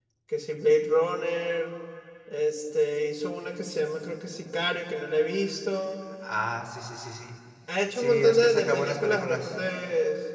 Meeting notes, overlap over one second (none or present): present